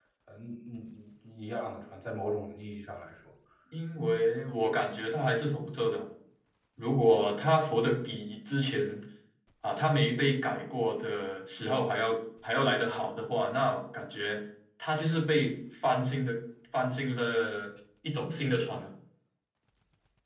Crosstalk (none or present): none